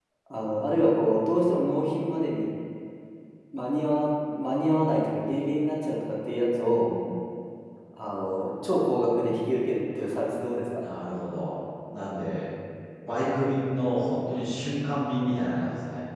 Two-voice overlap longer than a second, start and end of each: none

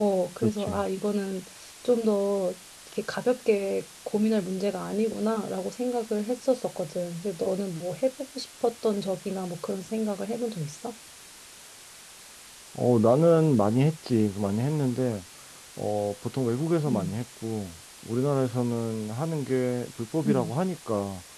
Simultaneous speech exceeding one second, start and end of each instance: none

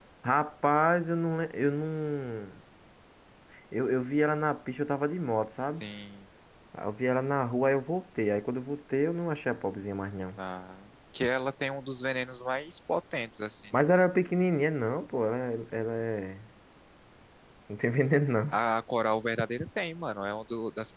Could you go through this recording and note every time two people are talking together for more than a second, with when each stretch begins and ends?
none

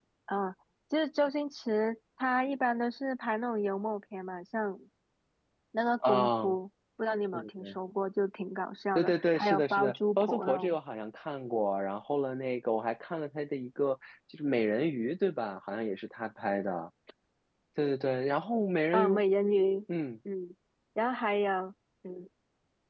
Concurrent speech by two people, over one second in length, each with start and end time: 8.9-10.8

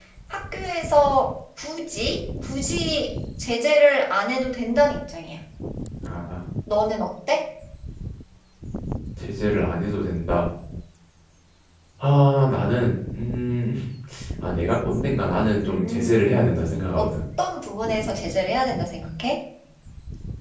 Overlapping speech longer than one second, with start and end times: 15.7-17.1

